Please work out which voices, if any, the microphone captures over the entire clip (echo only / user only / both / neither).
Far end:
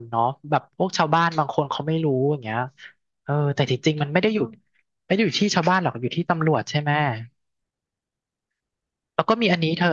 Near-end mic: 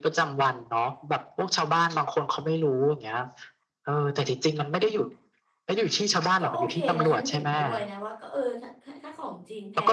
both